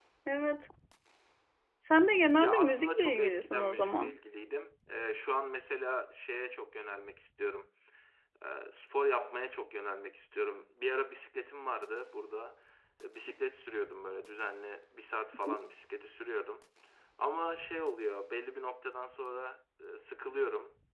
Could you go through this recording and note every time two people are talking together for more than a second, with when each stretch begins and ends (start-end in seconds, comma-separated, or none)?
2.4-4.1